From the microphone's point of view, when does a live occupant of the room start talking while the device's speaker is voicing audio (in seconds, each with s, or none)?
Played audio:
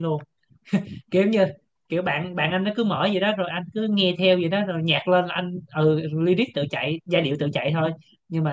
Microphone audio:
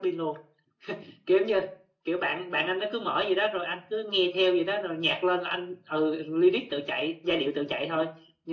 none